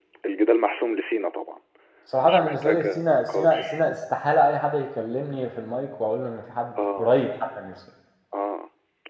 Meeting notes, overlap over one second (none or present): present